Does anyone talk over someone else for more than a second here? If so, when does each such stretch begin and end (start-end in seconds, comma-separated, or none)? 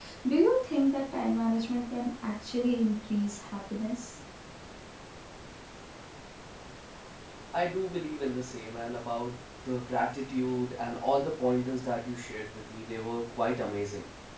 none